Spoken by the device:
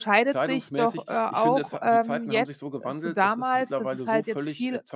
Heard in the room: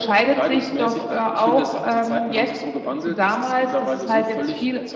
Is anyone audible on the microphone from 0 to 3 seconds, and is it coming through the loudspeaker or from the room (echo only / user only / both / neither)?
echo only